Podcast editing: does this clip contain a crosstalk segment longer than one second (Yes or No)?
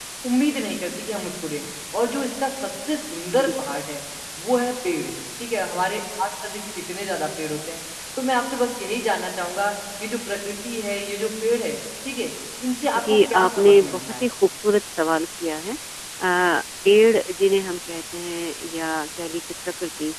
Yes